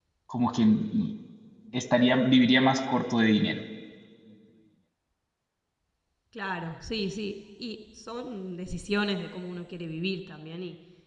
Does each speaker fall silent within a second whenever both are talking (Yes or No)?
Yes